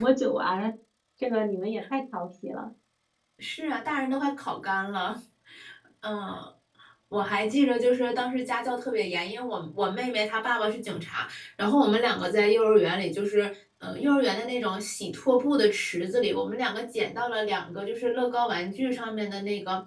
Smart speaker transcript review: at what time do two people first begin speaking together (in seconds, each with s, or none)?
none